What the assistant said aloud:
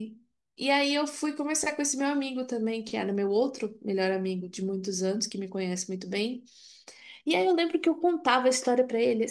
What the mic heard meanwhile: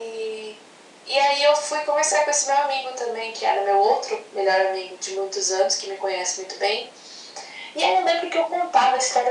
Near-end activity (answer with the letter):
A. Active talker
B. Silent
B